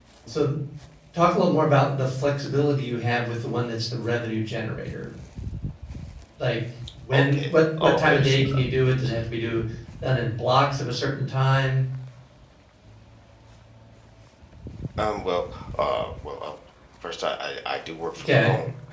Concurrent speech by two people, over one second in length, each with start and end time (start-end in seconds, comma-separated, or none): 7.1-8.4